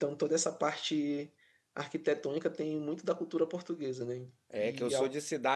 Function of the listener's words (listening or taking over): taking over